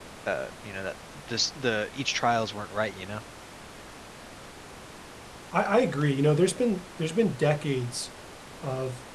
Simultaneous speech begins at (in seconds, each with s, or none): none